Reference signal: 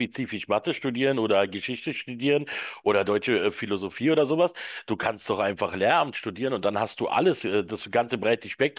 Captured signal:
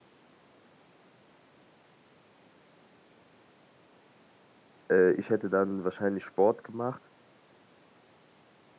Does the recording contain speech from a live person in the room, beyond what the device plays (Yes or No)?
Yes